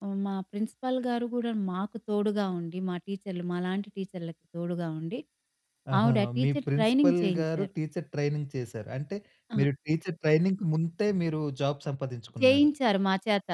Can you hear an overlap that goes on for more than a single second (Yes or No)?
Yes